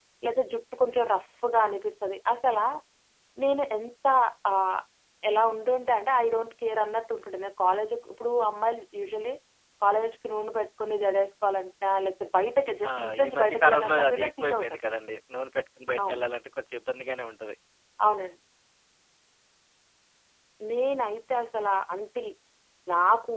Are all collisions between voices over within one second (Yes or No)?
No